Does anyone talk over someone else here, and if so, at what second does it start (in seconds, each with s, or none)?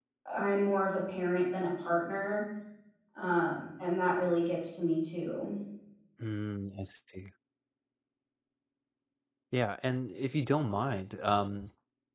none